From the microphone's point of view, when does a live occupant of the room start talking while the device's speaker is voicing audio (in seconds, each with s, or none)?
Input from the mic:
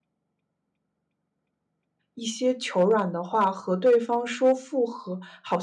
2.1 s